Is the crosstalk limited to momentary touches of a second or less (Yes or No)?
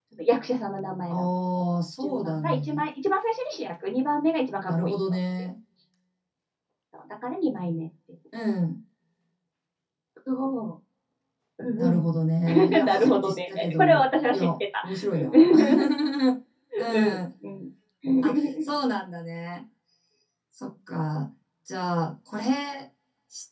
No